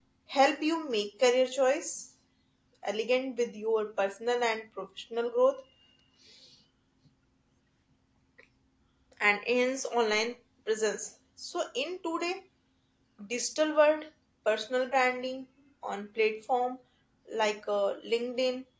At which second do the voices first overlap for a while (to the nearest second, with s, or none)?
none